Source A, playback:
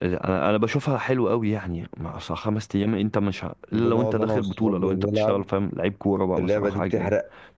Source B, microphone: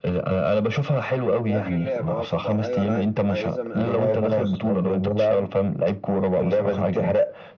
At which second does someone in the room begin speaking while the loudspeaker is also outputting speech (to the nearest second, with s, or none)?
1 s